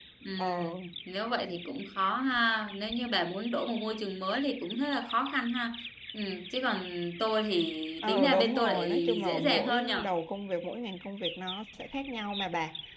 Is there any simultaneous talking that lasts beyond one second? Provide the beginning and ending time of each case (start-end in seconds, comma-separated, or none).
8.0-10.1